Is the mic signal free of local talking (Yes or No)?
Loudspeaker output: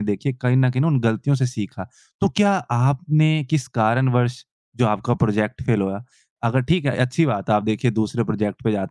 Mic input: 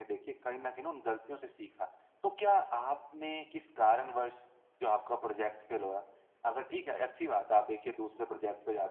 Yes